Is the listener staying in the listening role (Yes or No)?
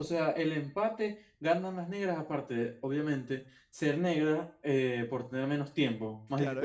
No